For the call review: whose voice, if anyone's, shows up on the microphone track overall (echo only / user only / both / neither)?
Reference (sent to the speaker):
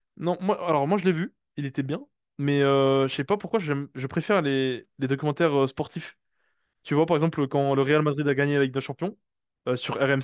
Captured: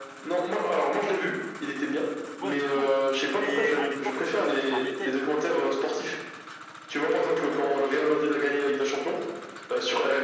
both